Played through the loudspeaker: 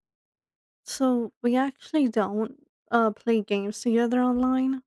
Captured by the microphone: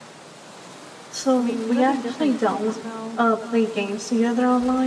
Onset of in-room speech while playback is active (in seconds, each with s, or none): 1.4 s